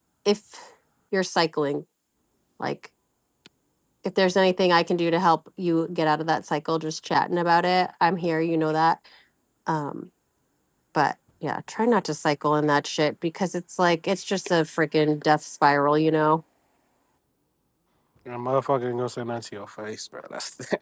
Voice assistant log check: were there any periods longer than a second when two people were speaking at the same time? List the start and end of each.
none

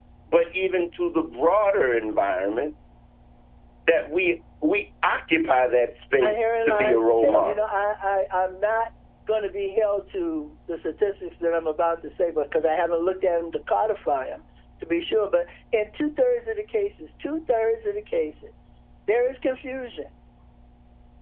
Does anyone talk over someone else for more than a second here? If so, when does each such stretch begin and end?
6.2-7.7

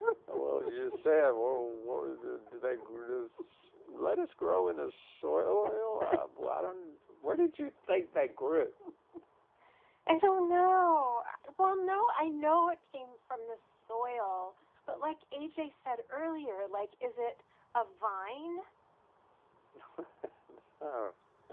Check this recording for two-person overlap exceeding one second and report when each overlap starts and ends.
none

